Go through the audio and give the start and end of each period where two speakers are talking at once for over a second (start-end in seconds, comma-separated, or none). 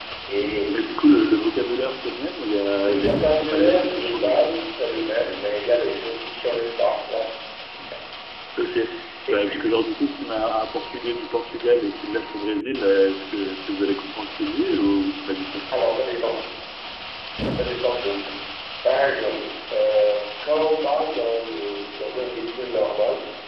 2.8-4.4